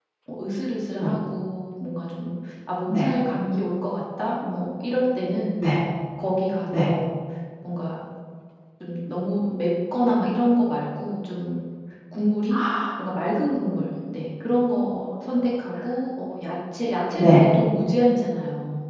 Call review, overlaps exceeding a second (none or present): none